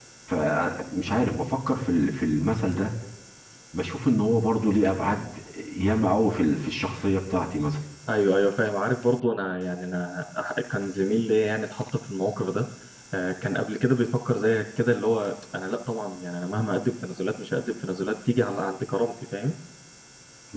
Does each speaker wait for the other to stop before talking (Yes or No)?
Yes